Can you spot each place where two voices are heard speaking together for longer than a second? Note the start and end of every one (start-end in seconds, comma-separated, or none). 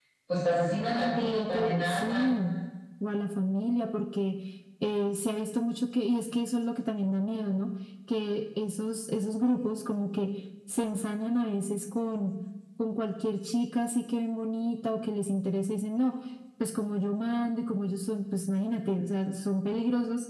1.2-2.4